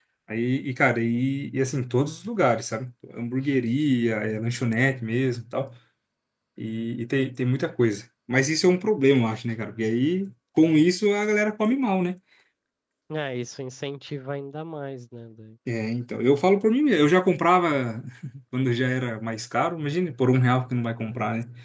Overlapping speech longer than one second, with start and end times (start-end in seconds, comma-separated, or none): none